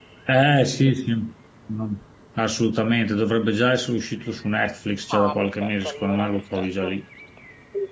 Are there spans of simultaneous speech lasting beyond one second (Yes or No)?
Yes